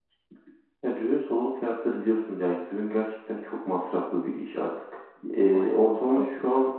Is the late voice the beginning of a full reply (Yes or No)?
No